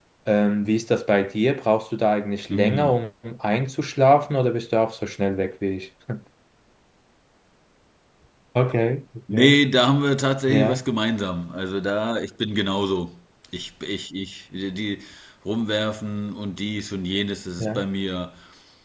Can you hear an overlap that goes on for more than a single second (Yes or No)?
No